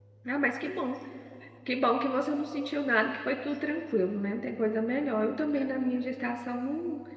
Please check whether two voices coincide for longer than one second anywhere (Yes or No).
No